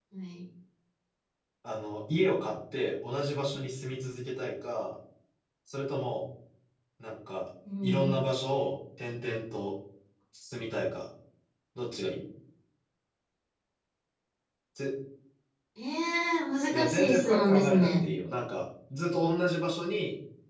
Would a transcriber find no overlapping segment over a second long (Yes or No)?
No